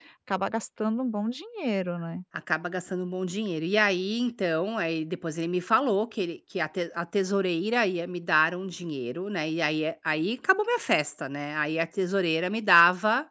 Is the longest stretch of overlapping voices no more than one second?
Yes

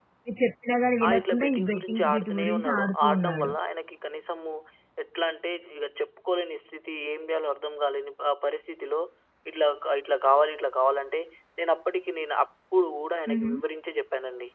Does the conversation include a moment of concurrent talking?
Yes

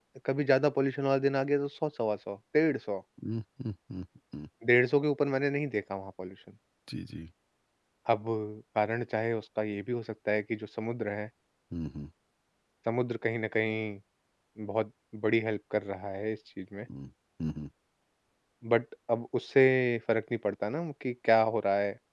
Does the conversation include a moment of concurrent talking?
No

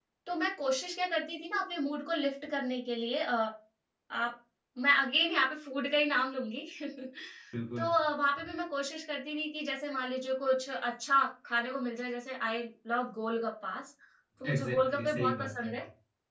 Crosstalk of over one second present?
Yes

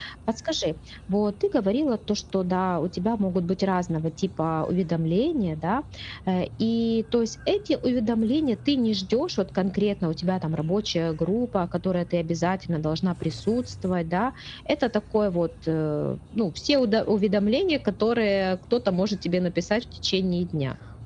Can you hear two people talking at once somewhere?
No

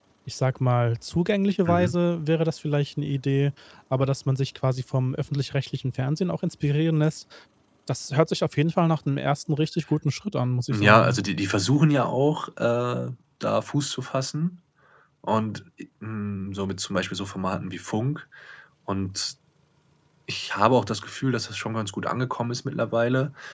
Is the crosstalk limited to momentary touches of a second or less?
Yes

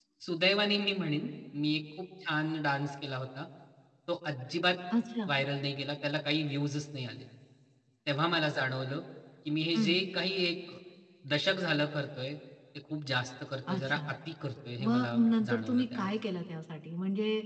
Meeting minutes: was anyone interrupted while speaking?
Yes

